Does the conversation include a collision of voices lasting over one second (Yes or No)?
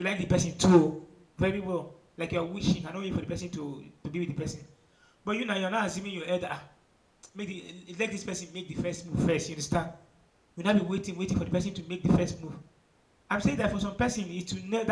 No